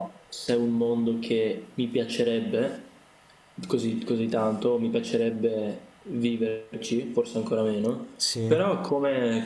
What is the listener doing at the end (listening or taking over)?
listening